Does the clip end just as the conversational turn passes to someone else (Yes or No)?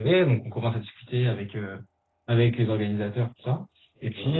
No